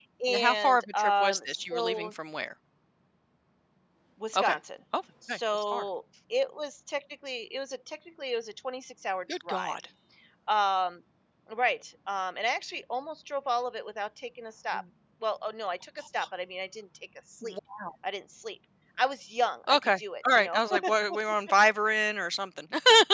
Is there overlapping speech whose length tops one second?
Yes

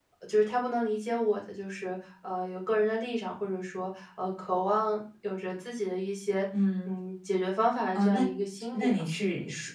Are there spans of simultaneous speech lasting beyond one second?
No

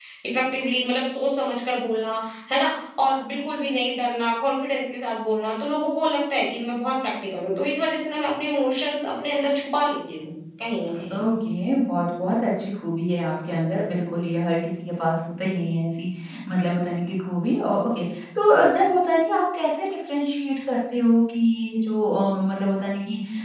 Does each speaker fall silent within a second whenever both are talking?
Yes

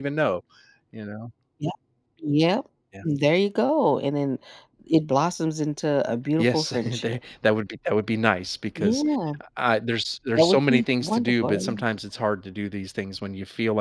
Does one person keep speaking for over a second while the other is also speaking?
Yes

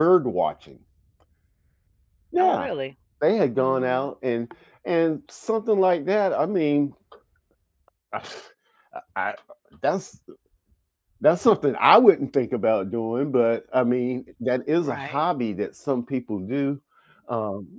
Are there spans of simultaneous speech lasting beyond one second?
No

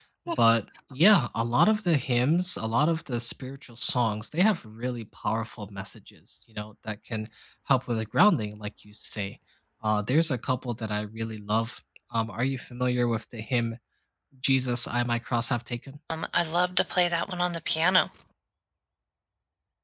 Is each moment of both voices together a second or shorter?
Yes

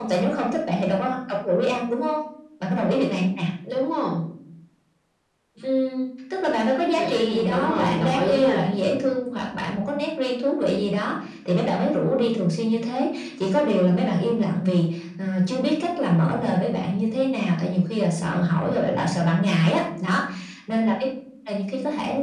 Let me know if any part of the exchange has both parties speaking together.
Yes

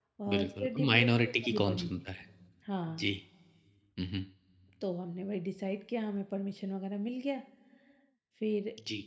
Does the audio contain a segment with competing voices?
Yes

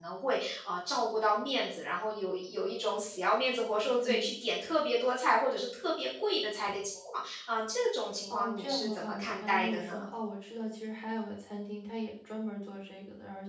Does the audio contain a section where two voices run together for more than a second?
Yes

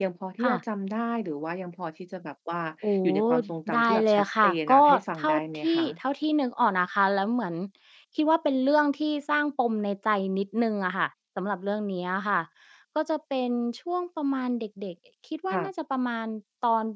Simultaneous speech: Yes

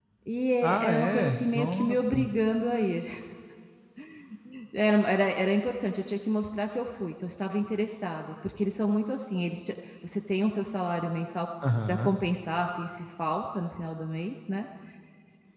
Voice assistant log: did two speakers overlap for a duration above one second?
Yes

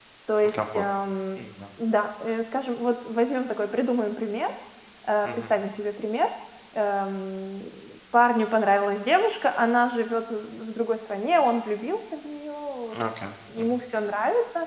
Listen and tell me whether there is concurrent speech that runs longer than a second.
No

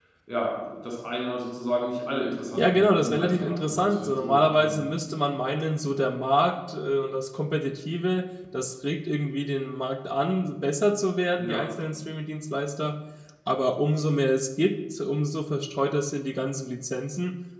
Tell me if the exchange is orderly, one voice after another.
No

